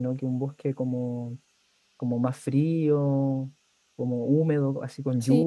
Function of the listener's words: listening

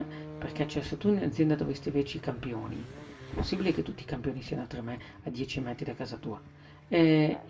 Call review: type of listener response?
listening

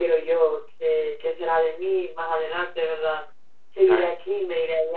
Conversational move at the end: listening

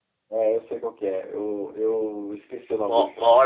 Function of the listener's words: taking over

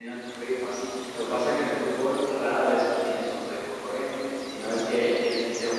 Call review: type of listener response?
listening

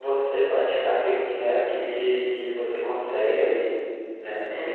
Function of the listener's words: listening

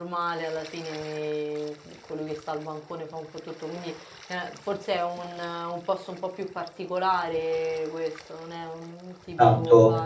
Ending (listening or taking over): taking over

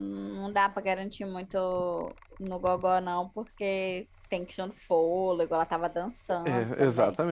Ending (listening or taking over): taking over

